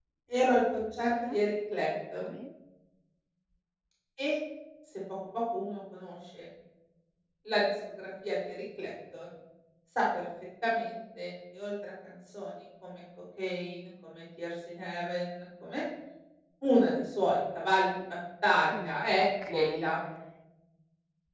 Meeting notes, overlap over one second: present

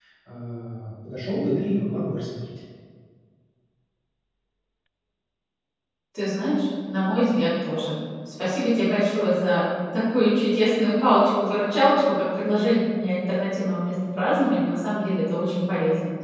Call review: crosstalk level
none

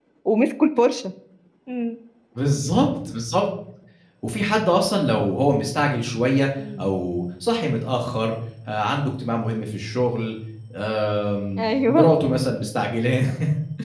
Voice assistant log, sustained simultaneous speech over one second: none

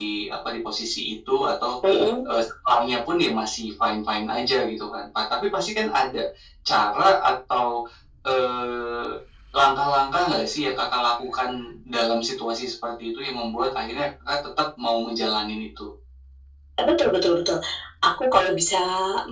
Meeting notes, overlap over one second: none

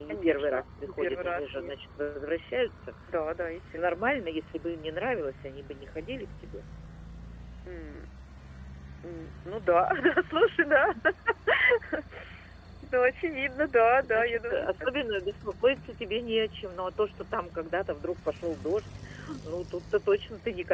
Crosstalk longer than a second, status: present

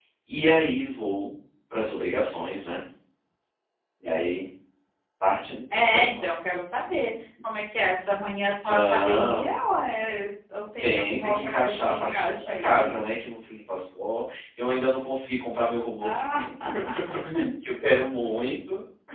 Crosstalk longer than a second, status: present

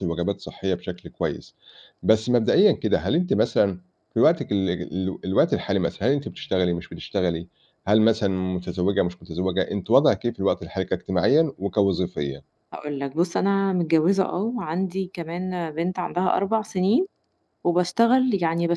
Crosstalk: none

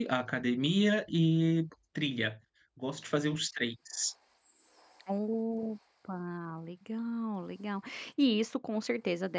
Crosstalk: none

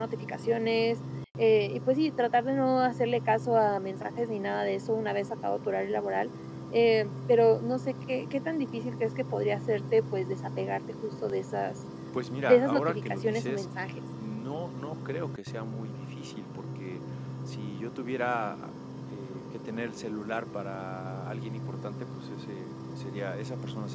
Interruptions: present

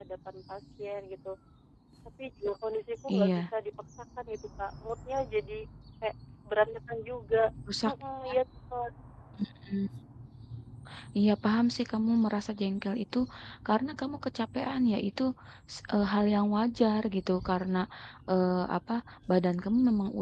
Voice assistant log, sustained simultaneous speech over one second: none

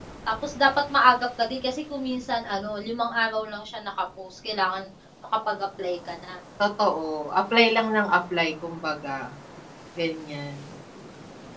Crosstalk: none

